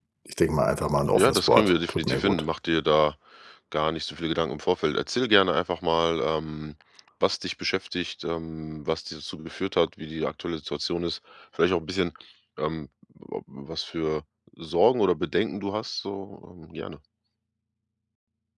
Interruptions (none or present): present